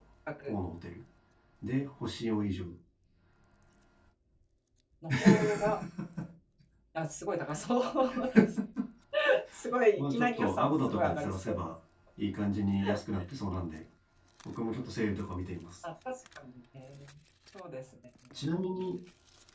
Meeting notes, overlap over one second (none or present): present